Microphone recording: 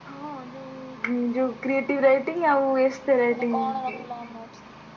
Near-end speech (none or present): present